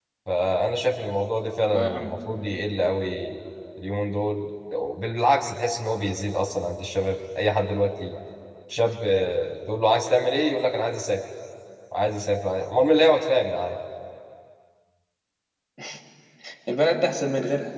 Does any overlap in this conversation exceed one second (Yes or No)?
No